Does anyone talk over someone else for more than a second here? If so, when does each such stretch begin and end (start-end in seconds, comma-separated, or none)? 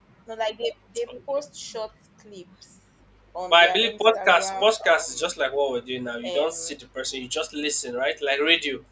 3.5-5.2